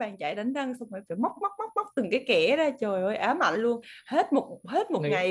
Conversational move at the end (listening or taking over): listening